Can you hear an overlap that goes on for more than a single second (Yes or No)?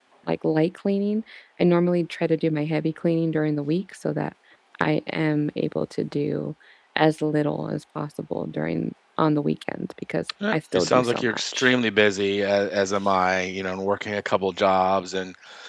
Yes